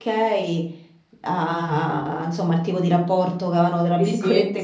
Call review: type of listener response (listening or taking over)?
taking over